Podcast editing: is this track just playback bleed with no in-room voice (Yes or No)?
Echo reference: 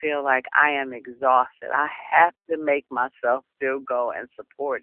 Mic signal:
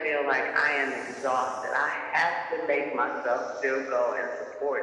Yes